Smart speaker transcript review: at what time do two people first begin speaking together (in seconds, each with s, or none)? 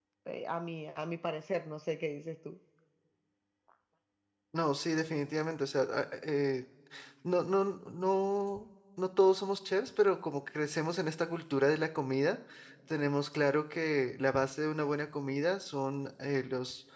none